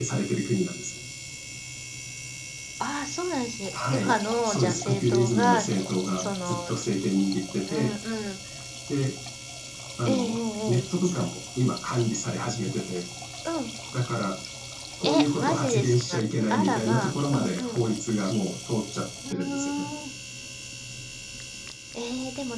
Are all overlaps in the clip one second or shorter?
No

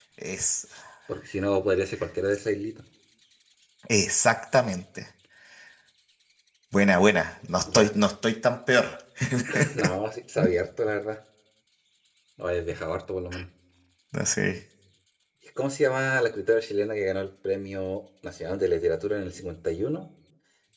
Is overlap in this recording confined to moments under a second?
Yes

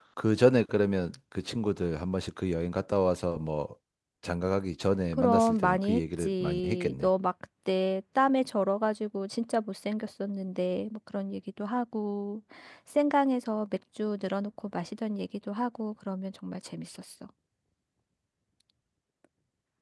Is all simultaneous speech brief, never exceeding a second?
No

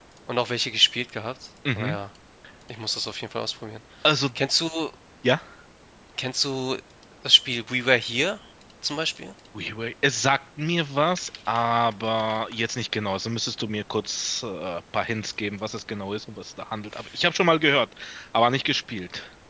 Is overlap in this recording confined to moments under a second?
Yes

